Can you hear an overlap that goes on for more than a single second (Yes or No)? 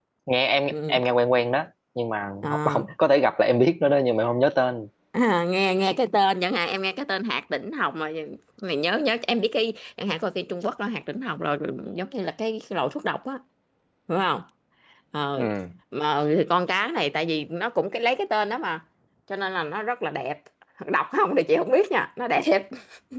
No